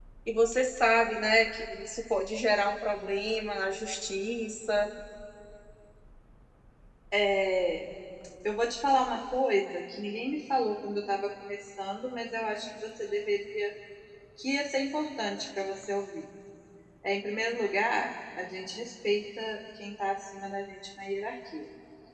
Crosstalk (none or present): none